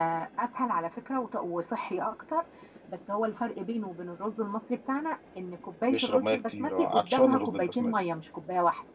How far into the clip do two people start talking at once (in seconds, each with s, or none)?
5.9 s